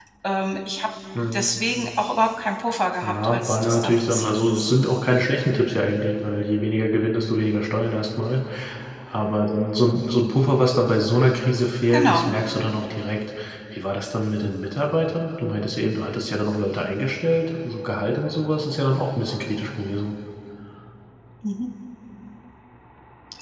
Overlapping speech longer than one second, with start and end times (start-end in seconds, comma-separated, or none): 3.0-4.7